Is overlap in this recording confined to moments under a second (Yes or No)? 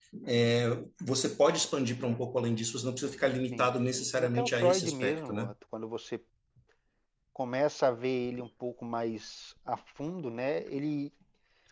No